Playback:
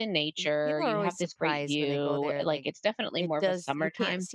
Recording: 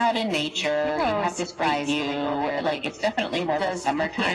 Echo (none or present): present